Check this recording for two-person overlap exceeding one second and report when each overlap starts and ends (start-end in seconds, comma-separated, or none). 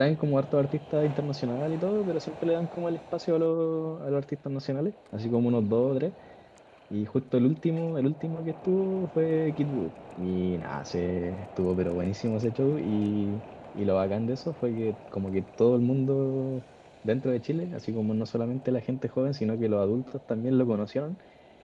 none